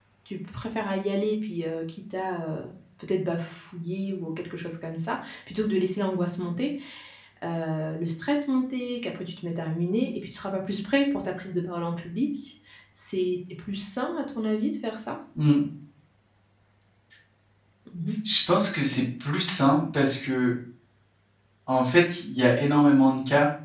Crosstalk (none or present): none